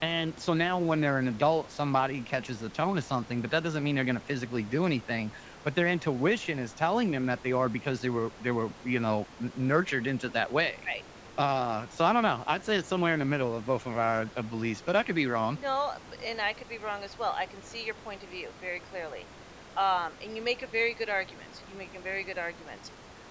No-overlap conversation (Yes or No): Yes